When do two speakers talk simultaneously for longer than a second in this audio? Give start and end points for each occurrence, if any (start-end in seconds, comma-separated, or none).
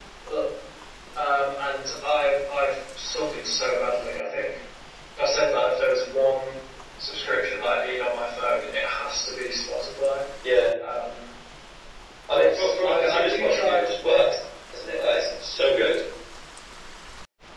12.3-13.8